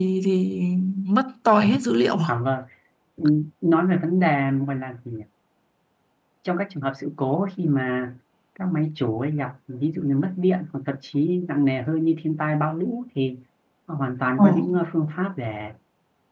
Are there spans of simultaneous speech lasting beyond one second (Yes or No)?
No